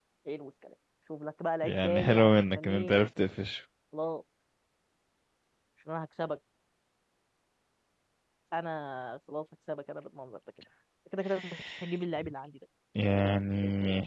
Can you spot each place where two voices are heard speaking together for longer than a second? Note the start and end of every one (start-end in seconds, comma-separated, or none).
1.6-2.9